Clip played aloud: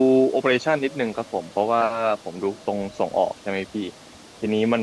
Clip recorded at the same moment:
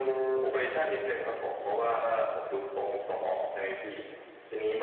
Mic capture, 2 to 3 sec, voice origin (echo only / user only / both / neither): echo only